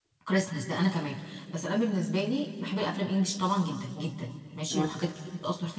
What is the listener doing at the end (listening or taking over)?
listening